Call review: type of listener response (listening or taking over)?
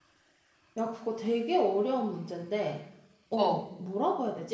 listening